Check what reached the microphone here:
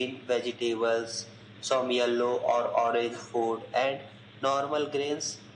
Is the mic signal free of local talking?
Yes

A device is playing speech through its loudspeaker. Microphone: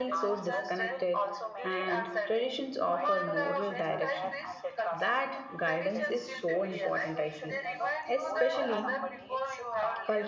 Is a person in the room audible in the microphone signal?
Yes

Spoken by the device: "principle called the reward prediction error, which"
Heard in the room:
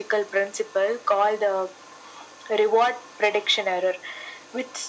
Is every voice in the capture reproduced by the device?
Yes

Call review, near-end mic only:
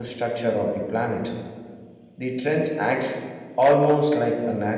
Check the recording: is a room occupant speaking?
Yes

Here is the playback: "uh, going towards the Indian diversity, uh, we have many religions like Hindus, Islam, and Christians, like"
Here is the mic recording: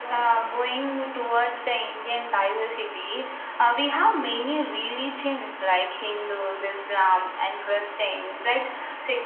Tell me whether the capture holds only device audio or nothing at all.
Yes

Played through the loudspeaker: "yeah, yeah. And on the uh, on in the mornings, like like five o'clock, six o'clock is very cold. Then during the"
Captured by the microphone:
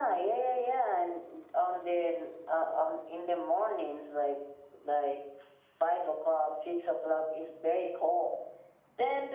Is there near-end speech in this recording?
No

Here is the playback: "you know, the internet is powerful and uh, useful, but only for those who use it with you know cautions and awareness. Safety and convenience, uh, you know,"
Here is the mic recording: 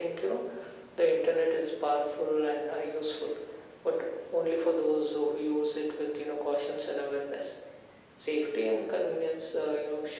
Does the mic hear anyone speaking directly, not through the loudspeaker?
No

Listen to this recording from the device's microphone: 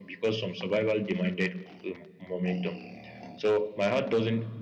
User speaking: No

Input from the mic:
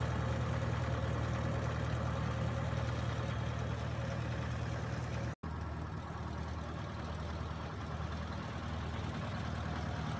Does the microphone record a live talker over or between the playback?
No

